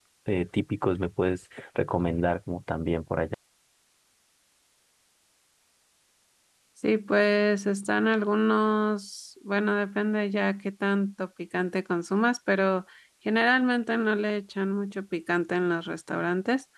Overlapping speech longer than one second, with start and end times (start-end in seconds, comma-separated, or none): none